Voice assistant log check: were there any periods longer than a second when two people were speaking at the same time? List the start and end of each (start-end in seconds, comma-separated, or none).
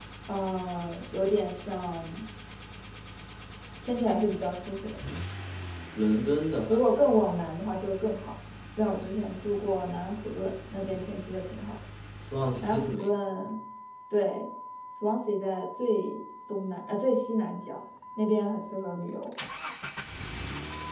none